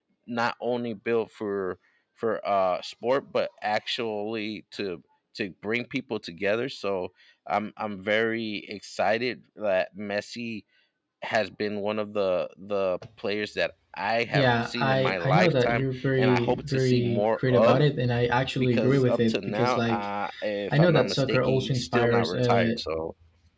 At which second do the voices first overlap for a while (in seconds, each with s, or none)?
14.3 s